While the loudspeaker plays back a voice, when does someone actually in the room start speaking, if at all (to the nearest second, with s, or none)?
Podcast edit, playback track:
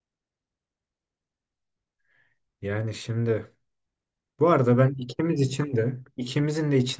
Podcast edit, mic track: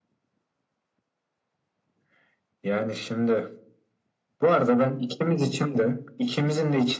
none